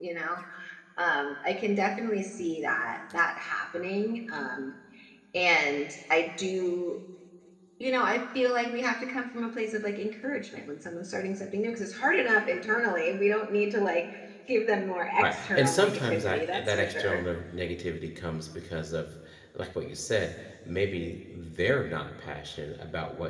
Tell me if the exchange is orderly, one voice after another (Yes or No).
No